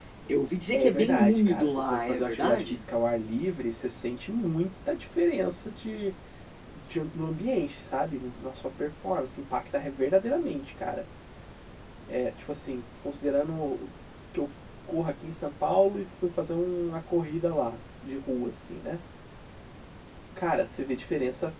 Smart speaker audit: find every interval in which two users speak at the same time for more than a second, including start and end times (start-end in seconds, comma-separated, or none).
0.7-2.8